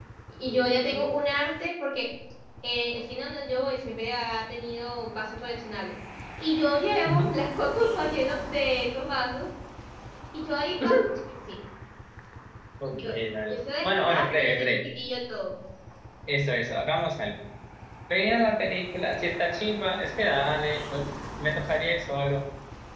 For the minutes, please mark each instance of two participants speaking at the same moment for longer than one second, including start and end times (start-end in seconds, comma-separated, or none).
13.5-14.8